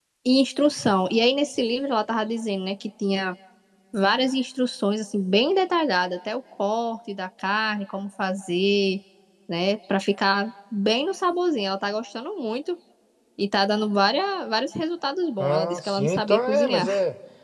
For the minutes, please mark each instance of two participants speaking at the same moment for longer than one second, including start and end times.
15.4-16.9

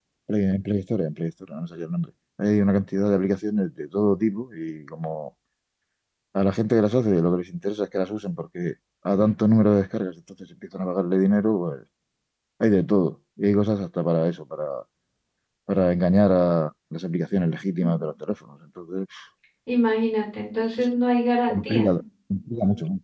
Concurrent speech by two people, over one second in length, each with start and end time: none

